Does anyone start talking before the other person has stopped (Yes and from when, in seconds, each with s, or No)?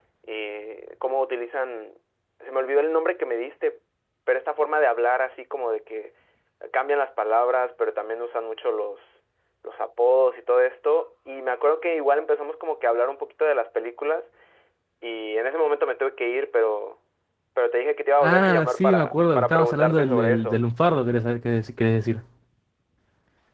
Yes, from 18.2 s